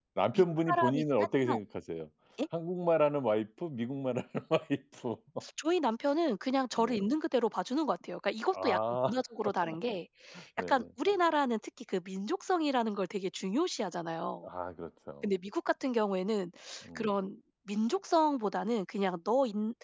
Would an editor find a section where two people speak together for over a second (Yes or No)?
Yes